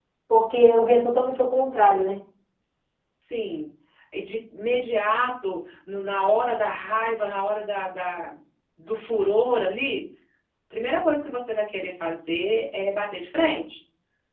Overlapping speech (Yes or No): No